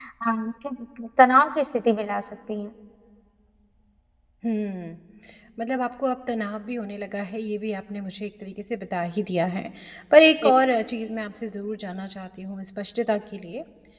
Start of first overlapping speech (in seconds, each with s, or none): none